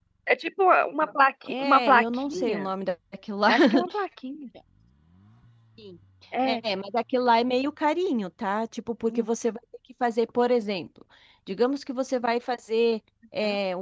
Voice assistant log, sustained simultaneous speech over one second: present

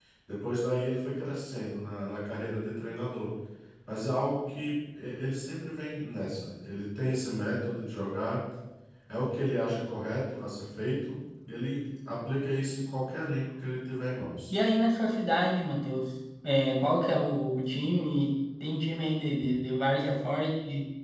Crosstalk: none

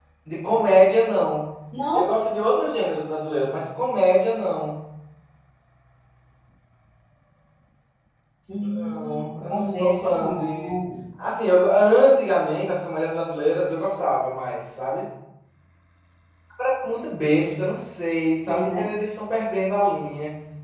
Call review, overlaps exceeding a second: present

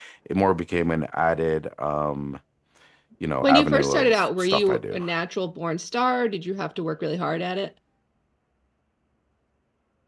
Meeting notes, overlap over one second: present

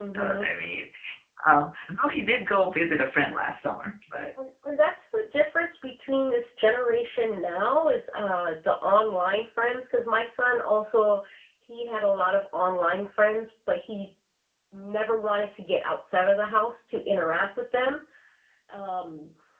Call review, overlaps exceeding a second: none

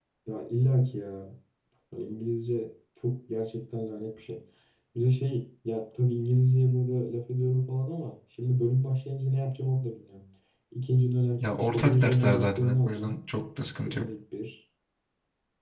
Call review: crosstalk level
present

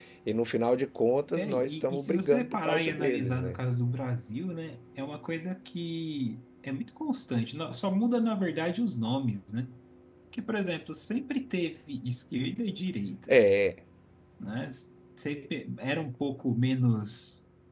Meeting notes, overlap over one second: present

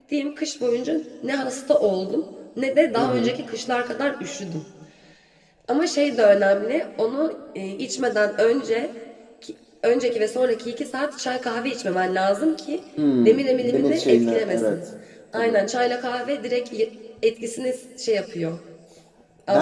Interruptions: present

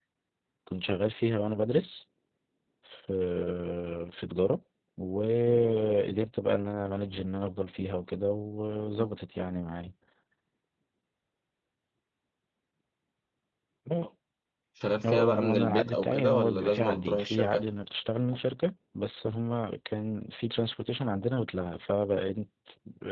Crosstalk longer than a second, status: present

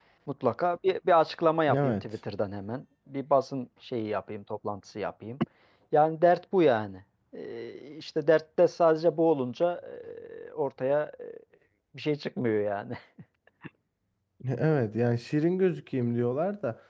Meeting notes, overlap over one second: none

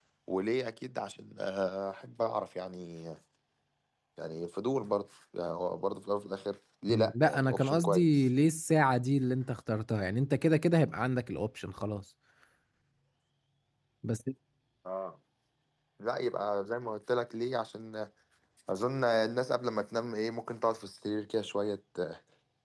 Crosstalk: present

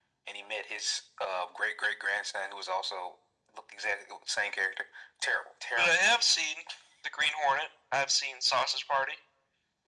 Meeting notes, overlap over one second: none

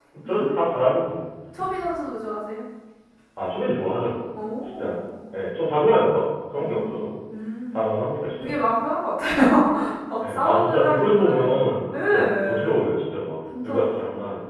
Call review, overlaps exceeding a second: present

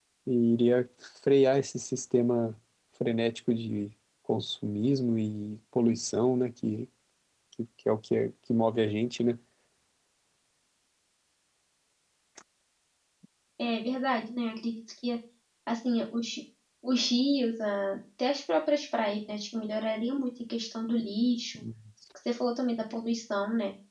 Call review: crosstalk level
none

